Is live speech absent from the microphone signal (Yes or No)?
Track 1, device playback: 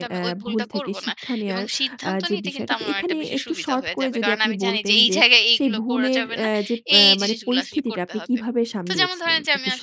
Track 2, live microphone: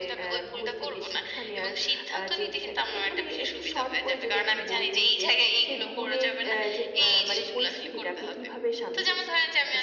Yes